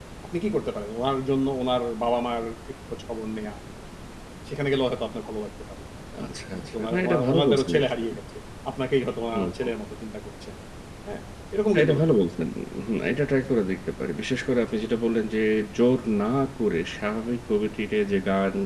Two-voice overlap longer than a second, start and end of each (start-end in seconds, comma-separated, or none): 6.5-8.2